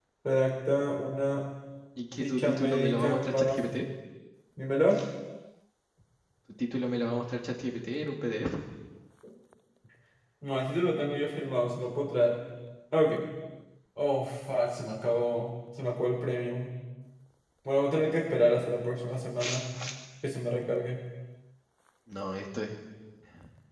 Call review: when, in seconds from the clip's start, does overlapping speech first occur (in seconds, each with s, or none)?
2.2 s